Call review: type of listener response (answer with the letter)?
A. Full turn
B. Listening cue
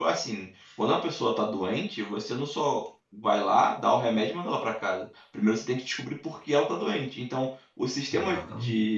B